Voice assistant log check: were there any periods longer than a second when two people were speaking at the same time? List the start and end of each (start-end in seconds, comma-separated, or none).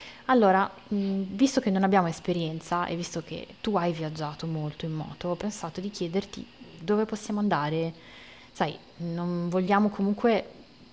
none